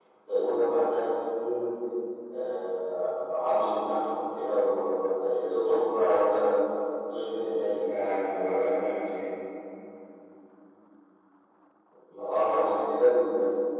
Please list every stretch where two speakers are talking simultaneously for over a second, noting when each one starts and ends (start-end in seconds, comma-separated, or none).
none